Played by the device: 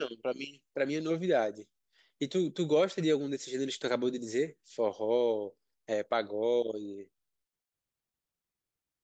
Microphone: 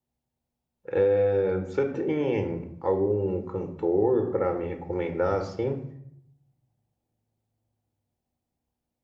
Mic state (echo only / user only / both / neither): user only